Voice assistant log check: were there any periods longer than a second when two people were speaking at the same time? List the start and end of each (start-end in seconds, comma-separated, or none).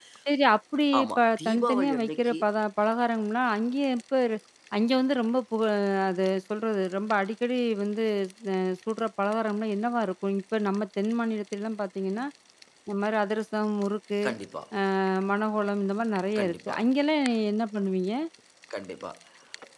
1.0-2.4